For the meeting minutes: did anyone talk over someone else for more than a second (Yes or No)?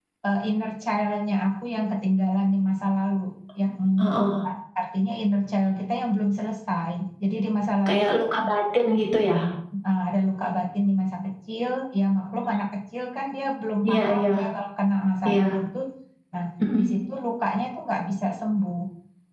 No